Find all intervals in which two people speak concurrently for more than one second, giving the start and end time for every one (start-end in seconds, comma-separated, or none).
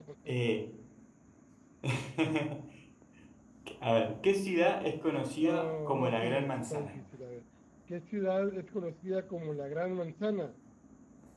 5.4-6.9